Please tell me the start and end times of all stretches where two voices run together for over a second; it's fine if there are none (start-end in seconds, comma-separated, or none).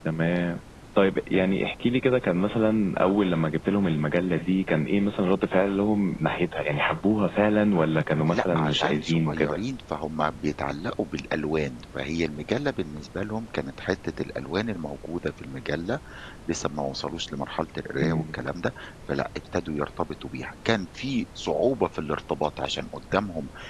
8.3-9.6